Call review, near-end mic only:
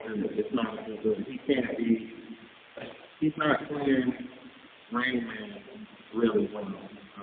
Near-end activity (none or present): none